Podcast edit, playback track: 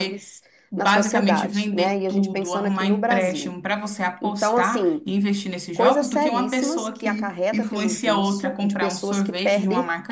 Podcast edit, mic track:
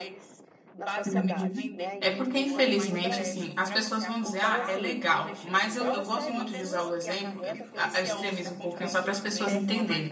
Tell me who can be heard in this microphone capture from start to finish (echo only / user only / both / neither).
both